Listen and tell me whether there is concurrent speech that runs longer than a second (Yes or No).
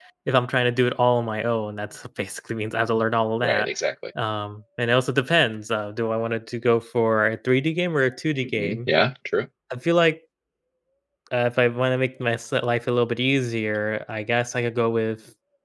No